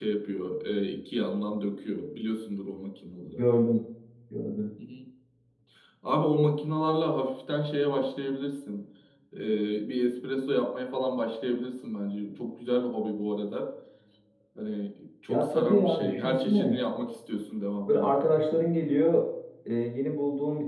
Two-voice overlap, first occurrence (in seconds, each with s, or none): 15.3 s